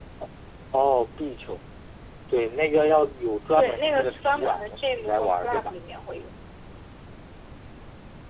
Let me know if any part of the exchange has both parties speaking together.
Yes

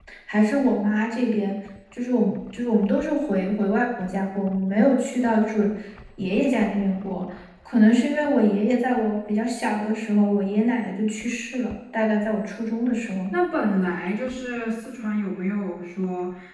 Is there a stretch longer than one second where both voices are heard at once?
No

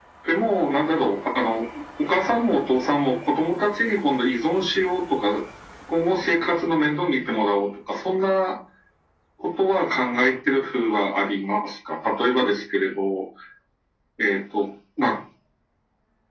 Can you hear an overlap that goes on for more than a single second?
No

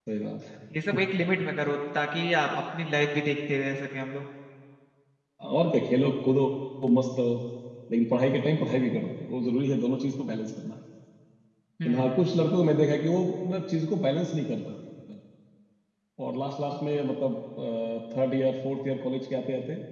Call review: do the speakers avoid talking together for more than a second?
Yes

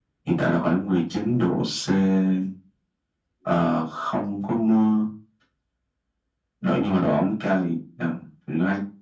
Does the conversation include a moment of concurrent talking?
No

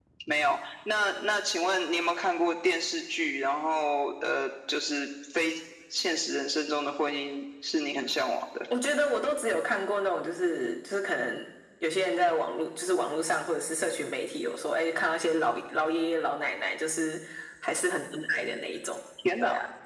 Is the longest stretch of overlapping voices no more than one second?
Yes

